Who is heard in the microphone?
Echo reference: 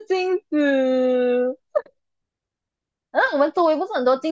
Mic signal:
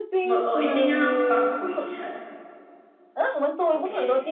both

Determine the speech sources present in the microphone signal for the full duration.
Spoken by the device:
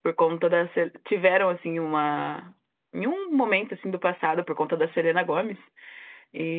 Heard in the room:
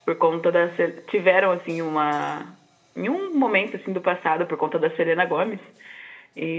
echo only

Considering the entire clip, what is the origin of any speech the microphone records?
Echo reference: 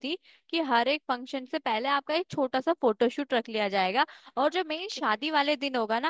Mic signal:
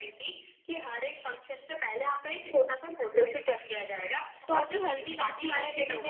both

